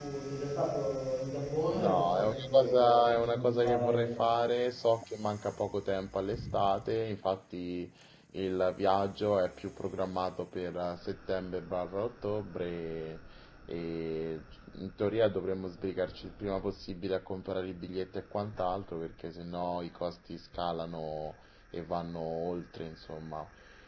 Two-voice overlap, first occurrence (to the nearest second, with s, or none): 2 s